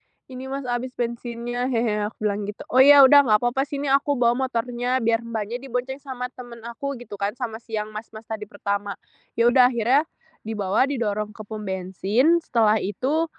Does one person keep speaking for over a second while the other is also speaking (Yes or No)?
No